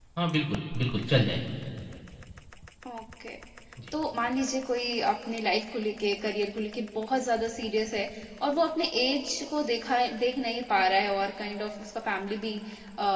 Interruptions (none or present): none